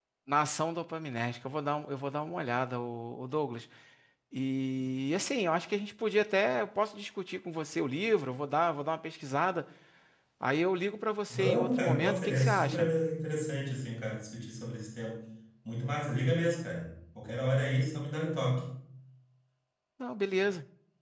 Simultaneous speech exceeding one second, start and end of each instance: 11.3-12.9

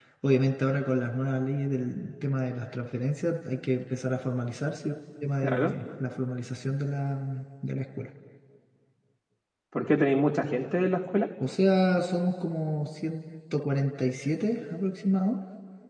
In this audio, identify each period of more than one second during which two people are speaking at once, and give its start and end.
none

